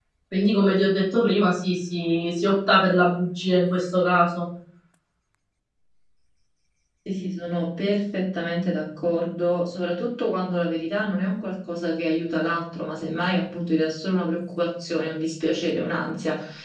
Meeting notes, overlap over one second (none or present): none